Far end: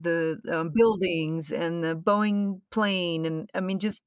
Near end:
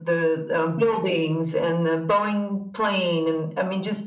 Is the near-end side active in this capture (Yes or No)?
No